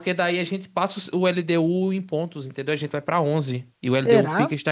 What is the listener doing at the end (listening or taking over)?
listening